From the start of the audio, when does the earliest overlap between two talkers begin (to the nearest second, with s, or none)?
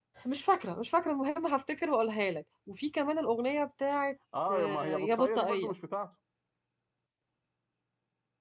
4 s